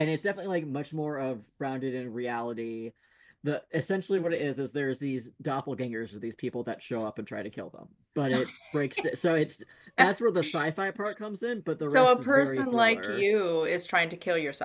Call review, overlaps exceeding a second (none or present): present